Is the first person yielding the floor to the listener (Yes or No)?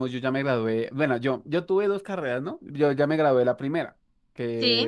No